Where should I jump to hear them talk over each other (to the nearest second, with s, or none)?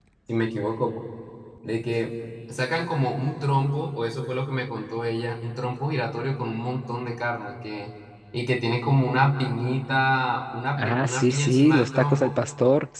11 s